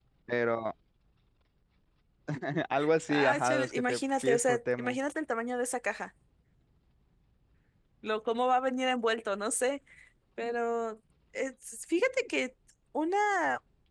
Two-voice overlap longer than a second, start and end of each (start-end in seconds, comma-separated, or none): 3.1-5.0